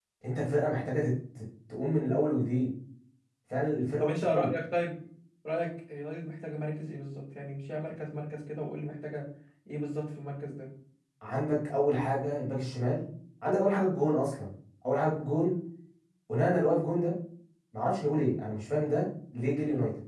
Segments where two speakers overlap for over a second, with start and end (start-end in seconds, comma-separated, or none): none